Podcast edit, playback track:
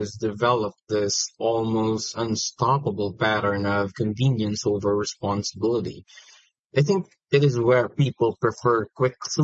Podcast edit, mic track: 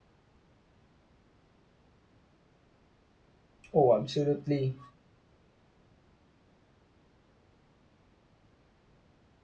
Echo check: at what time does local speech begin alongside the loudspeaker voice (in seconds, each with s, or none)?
3.7 s